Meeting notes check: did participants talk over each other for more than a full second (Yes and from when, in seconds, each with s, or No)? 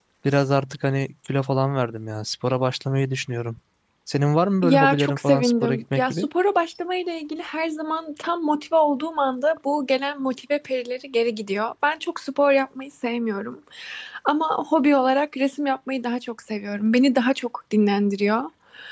Yes, from 4.6 s